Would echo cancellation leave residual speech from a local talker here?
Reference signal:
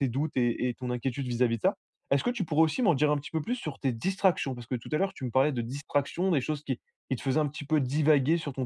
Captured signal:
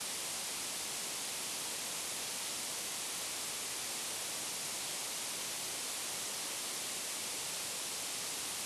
No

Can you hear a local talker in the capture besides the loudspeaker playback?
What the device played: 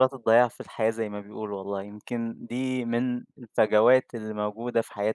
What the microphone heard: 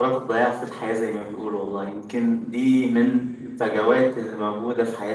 No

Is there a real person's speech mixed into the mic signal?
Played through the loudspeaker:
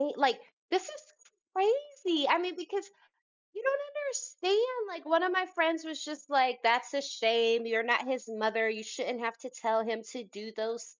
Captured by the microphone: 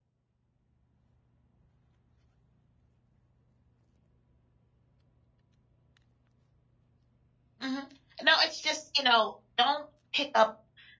Yes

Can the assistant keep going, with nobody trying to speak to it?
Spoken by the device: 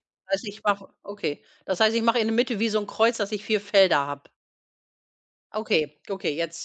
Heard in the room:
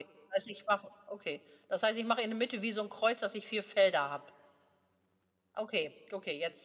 Yes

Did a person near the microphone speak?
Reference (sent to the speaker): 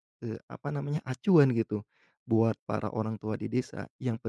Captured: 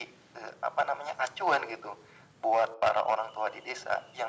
No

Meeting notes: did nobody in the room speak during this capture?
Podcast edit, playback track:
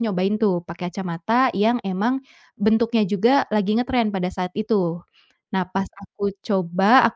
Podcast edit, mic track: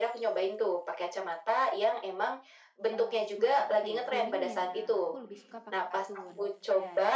No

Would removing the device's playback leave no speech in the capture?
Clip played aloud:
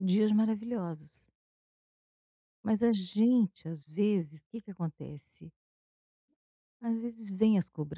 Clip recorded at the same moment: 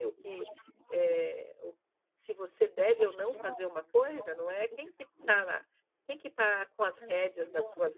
No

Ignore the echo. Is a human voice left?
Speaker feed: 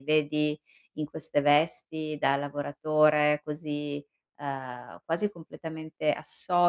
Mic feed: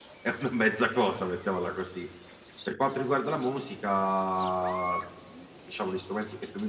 Yes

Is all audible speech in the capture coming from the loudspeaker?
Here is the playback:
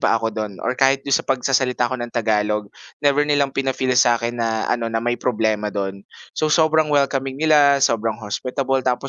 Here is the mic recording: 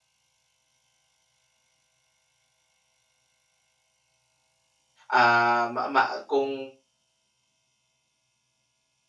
No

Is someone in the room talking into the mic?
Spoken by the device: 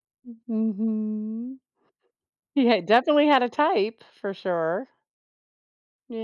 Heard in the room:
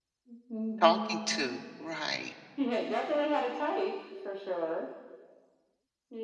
Yes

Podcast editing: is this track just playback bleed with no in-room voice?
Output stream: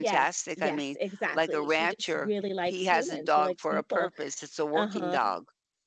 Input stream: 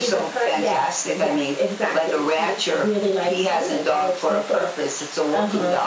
Yes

